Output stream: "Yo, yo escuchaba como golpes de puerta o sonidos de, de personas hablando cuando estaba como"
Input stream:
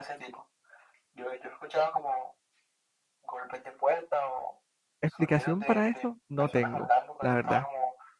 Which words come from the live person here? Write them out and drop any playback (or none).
explicación para esto no tengo, la verdad.